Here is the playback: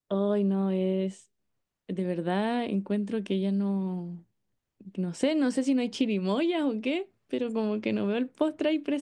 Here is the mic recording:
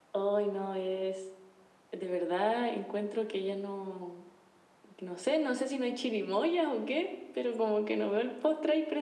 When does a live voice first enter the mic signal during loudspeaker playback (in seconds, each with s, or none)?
none